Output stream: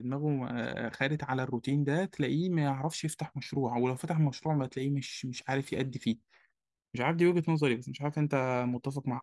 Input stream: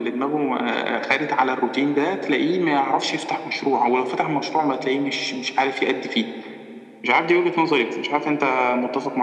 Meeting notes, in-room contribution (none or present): none